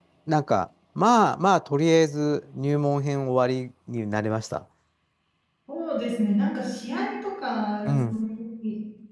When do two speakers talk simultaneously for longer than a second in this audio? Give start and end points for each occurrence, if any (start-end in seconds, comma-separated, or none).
none